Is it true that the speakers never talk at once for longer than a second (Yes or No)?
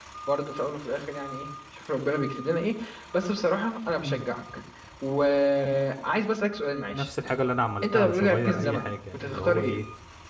No